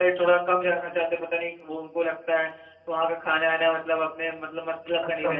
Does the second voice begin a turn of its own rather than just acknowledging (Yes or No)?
No